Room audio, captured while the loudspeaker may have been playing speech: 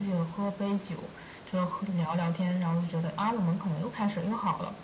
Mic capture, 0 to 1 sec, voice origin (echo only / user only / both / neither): echo only